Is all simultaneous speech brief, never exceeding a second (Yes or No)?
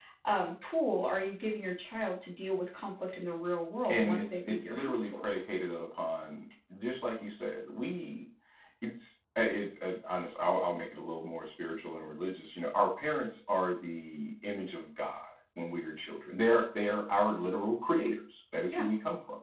No